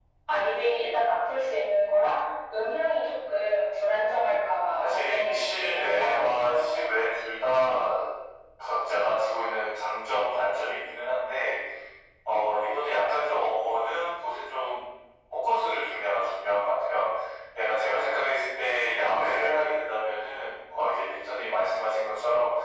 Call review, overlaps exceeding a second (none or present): present